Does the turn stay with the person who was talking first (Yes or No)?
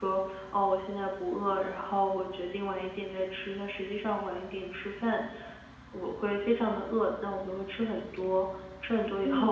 No